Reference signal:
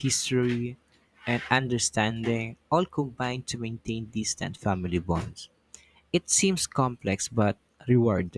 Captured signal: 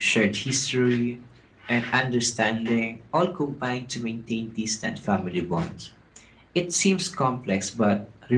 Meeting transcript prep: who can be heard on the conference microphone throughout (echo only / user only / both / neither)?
echo only